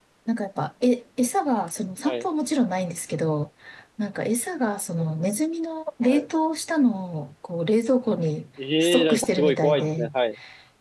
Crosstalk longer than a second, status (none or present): present